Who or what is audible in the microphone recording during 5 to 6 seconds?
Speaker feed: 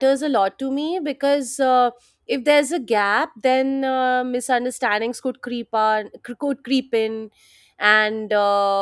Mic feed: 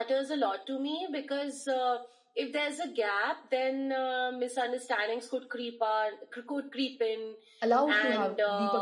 echo only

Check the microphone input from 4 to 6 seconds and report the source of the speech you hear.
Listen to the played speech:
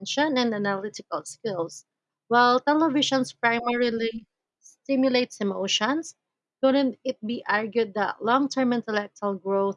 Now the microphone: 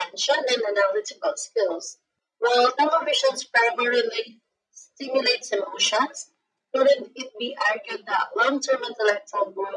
echo only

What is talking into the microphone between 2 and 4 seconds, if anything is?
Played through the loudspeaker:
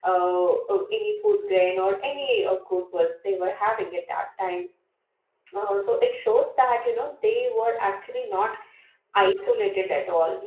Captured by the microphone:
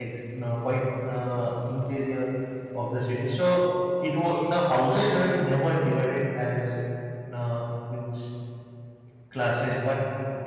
user only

